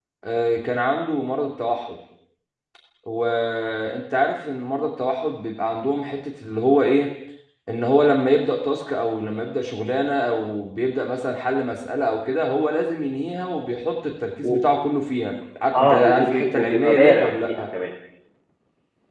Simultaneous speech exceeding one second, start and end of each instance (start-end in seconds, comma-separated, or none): 15.8-17.6